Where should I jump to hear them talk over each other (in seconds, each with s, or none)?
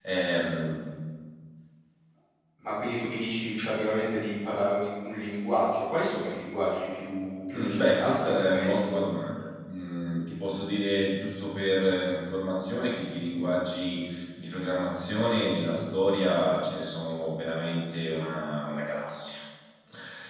7.5 s